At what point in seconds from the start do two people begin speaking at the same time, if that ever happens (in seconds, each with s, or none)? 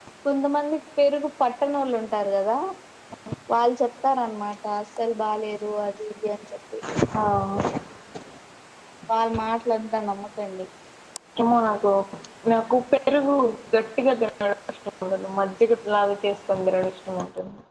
none